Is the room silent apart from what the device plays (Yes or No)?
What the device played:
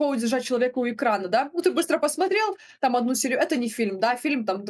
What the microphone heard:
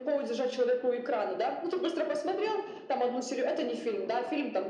Yes